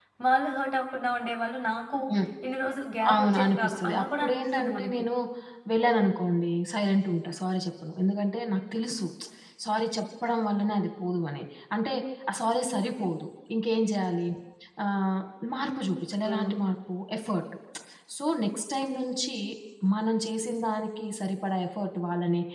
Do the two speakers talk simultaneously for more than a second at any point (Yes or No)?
Yes